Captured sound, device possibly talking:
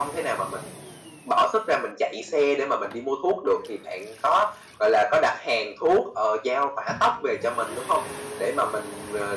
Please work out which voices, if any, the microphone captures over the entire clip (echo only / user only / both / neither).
echo only